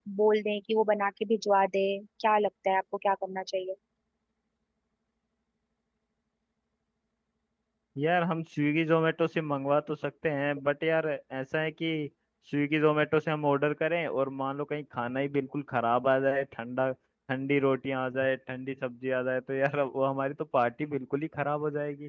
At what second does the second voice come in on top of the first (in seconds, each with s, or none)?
none